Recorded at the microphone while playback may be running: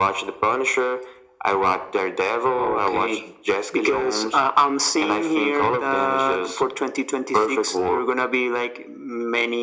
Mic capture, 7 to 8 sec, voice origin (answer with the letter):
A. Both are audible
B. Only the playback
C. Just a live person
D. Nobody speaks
B